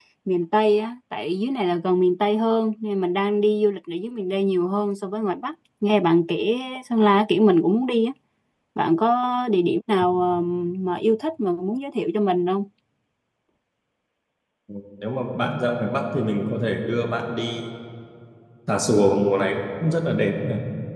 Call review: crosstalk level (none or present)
none